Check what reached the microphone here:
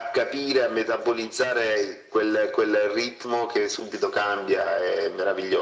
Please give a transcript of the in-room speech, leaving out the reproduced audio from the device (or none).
none